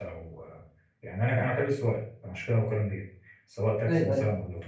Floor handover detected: No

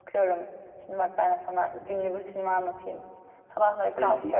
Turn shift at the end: No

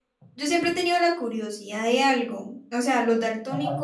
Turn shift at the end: No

